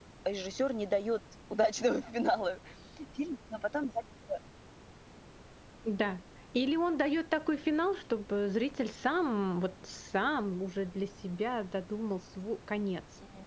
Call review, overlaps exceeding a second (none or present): none